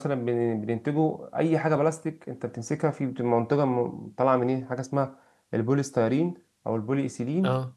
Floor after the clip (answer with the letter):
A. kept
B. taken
A